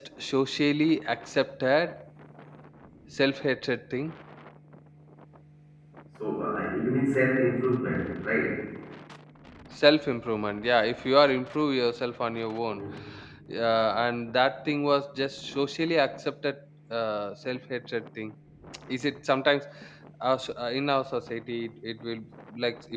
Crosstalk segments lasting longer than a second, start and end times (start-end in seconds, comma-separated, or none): none